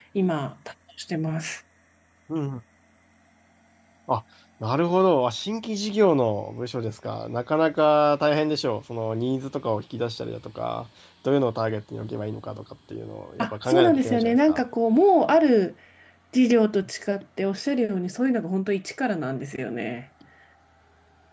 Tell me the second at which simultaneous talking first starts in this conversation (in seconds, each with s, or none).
13.4 s